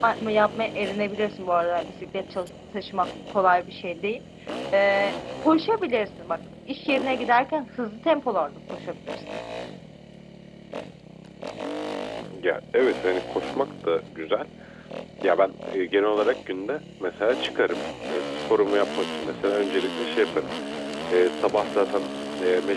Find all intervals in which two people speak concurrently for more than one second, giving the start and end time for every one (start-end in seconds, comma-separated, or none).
none